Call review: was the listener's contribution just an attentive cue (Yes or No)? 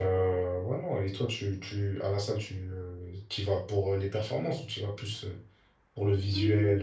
No